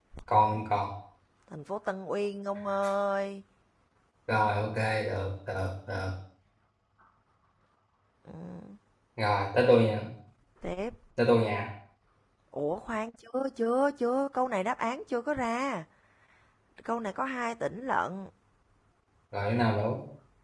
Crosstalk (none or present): none